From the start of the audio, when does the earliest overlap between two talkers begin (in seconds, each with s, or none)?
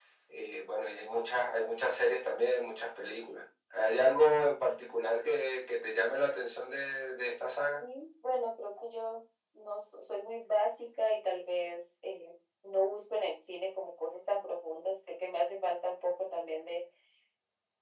none